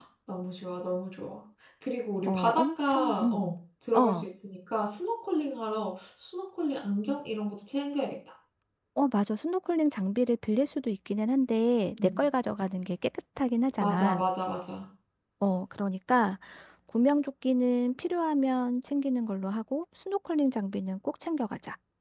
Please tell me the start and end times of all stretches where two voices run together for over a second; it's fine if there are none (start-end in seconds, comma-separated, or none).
2.2-3.5